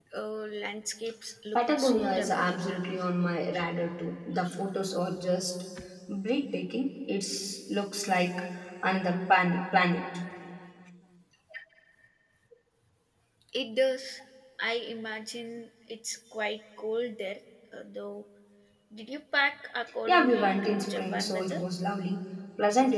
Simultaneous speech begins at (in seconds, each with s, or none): 1.6 s